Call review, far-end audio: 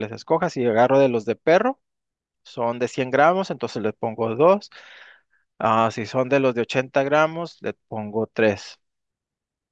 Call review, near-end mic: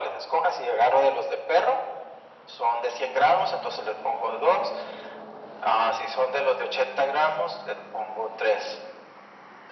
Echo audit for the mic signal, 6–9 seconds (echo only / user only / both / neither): echo only